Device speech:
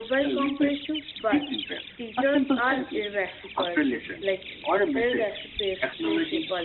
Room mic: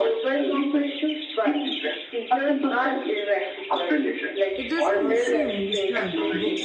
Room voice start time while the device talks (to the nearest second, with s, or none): 5 s